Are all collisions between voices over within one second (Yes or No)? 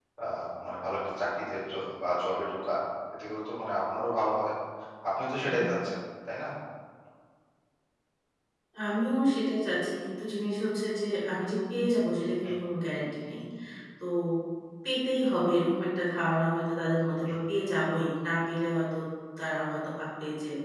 Yes